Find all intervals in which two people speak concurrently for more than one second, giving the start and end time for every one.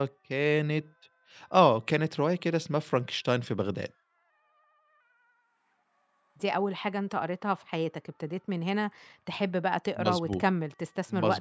none

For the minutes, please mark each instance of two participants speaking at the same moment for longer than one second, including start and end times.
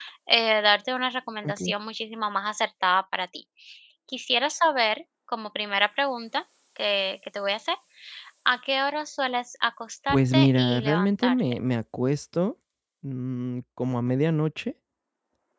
10.1-11.4

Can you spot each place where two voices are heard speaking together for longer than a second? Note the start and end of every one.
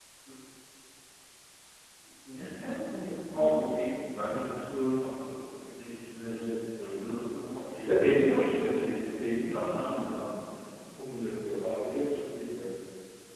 7.8-10.3

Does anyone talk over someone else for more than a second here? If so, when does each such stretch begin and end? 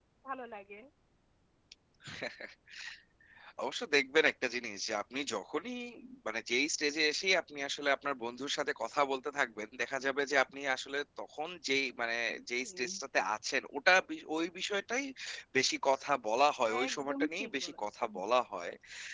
16.9-18.1

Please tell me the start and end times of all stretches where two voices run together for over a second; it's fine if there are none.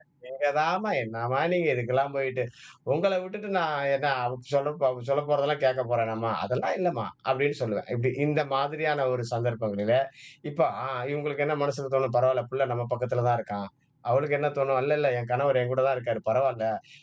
none

